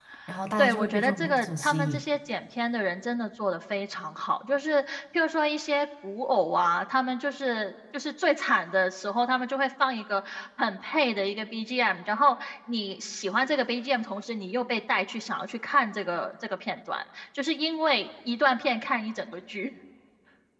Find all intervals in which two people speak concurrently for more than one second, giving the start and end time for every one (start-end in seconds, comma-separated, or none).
0.6-2.0